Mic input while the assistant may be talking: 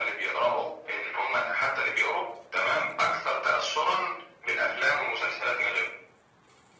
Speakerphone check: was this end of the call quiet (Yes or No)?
Yes